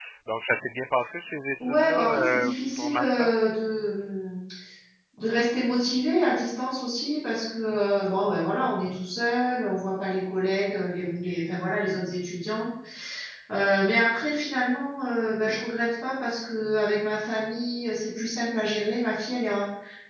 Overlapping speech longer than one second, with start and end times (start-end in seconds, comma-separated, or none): 1.6-3.3